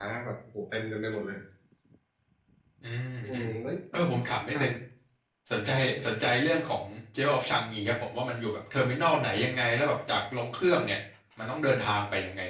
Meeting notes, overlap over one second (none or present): none